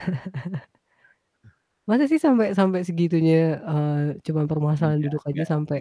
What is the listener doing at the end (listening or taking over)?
taking over